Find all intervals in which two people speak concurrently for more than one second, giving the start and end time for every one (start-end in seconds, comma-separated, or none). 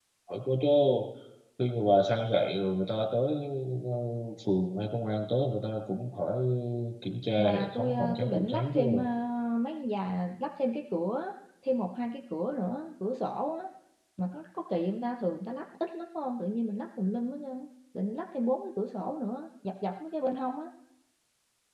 7.4-8.8